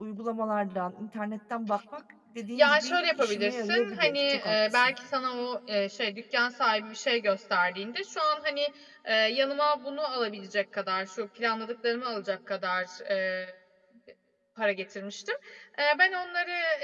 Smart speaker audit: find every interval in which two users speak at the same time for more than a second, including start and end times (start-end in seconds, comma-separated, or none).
2.6-4.9